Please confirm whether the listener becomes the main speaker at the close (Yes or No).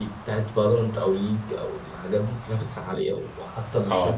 No